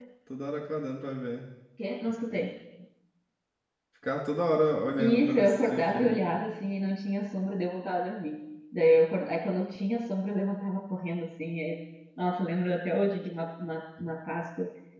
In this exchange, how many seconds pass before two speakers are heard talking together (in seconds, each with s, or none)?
5.0 s